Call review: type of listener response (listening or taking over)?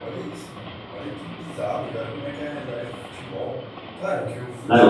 listening